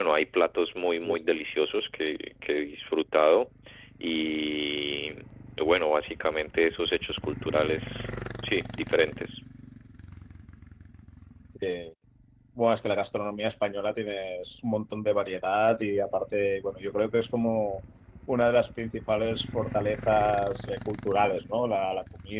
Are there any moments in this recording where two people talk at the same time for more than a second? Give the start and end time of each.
none

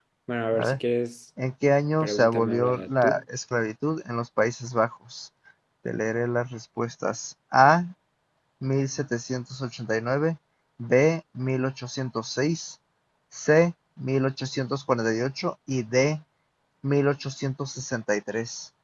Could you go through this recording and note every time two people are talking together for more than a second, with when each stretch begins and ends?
2.0-3.2

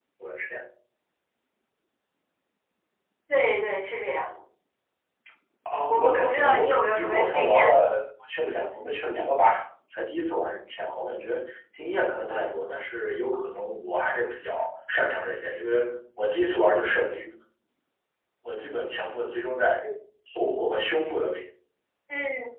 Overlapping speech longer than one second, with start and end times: 5.9-7.8

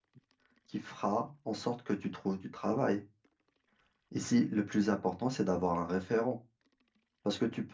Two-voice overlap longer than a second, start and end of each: none

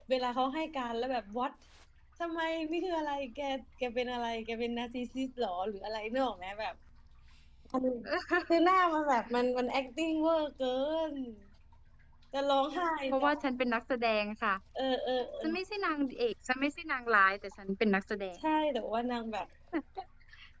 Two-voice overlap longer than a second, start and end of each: none

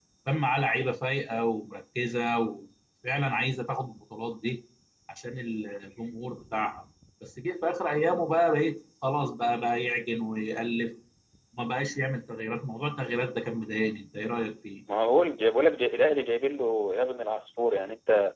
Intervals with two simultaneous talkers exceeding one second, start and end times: none

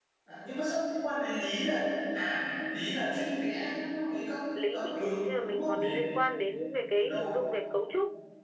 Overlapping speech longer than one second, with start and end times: 4.6-5.9

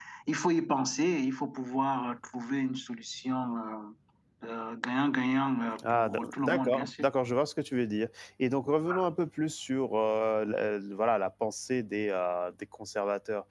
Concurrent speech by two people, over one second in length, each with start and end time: 5.8-7.0

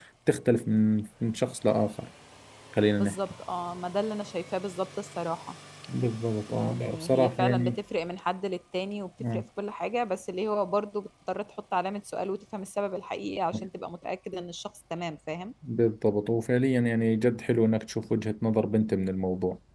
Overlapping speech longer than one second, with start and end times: 6.5-7.8

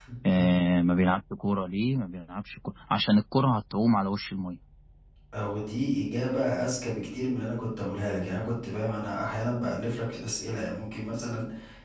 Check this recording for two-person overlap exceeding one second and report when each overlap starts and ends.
none

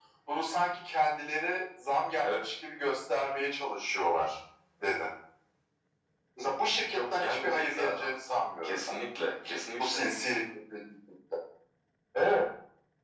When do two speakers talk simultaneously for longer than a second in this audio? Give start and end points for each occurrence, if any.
6.9-8.1

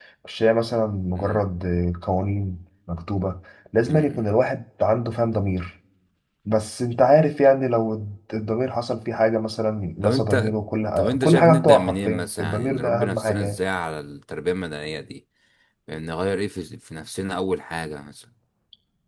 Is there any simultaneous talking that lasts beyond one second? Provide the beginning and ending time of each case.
11.0-13.6

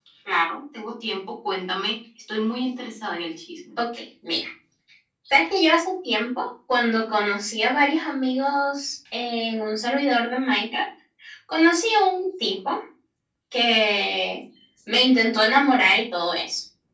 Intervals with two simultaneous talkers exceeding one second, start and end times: none

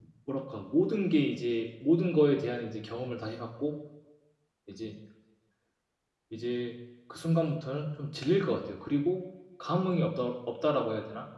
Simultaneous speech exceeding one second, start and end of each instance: none

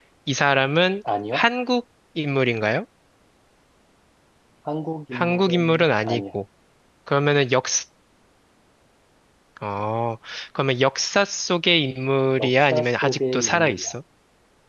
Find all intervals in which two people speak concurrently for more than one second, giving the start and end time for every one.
5.1-6.4, 12.4-13.9

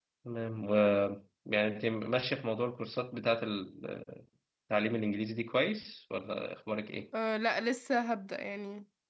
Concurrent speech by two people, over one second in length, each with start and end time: none

